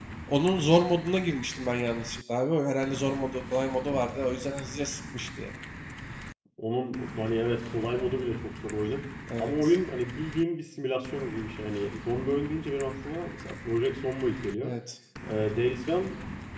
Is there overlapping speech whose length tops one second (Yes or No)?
No